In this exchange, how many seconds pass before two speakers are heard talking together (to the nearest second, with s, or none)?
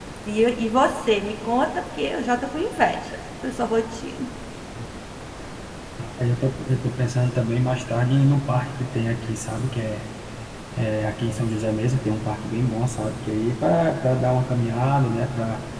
none